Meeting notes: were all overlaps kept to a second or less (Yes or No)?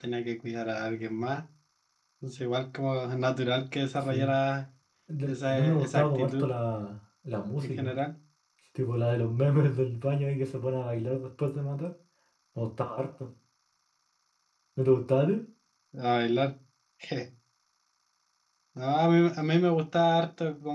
No